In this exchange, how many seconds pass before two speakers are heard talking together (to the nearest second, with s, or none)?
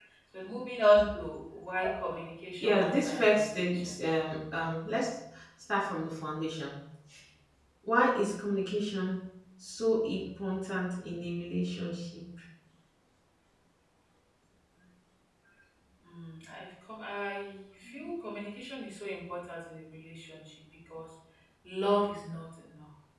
3 s